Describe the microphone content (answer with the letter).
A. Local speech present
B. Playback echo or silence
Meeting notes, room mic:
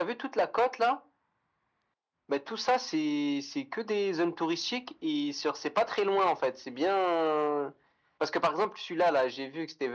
B